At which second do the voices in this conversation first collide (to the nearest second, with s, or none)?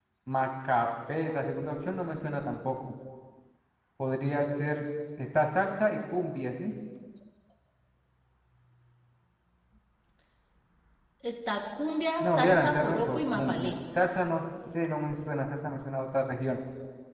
12 s